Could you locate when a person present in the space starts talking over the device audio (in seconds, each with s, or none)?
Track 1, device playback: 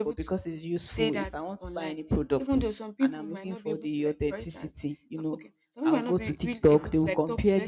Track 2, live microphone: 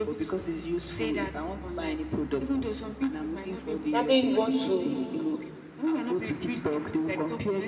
3.9 s